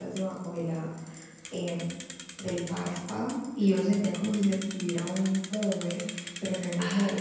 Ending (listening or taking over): listening